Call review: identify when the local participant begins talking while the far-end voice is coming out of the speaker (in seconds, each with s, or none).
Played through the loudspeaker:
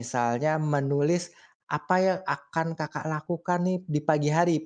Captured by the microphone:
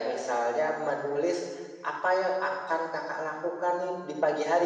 none